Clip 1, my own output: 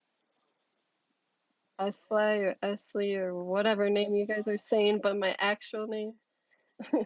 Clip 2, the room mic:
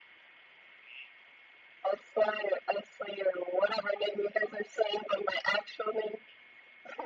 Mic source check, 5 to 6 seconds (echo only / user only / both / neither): echo only